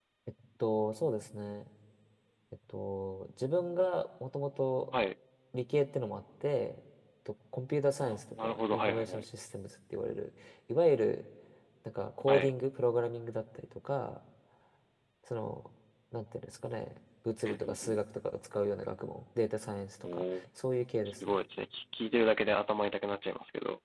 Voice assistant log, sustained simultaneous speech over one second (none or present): present